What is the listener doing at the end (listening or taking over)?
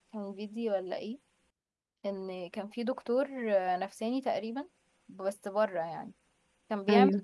listening